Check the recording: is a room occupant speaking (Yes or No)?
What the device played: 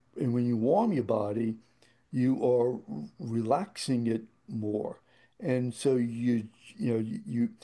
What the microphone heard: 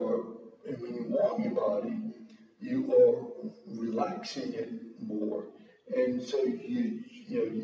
No